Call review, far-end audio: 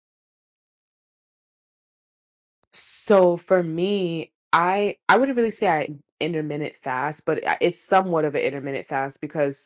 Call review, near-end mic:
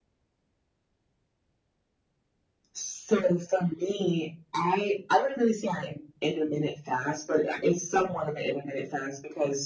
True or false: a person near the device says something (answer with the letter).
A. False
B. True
A